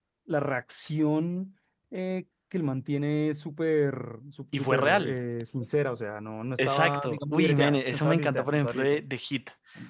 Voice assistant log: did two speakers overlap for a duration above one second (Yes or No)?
Yes